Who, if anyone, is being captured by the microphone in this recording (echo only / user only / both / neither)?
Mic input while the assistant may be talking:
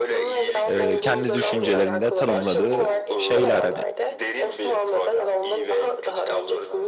both